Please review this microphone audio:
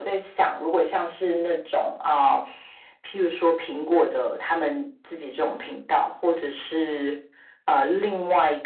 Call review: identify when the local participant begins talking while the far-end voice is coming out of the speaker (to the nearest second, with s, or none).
none